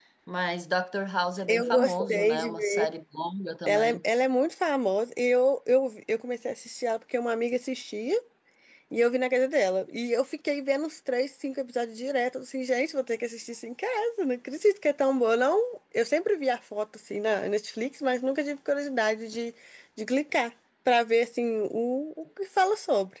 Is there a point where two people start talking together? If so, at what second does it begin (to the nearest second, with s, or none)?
1 s